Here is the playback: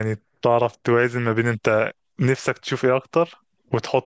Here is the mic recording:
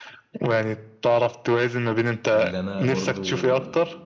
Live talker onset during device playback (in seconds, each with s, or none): 2.3 s